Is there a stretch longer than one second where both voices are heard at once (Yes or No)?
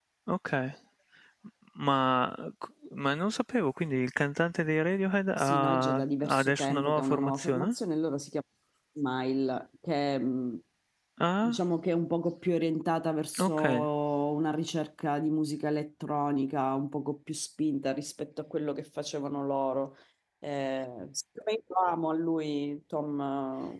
Yes